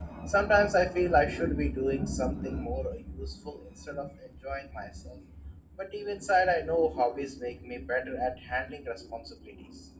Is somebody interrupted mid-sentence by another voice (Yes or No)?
No